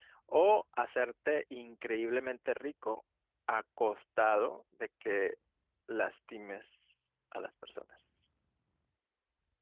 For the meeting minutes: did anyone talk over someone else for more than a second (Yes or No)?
No